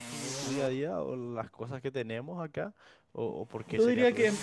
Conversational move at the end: taking over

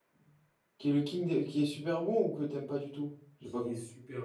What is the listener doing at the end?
taking over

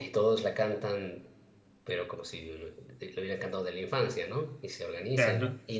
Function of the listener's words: listening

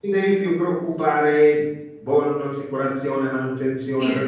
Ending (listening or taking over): listening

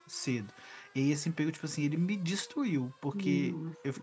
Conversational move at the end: listening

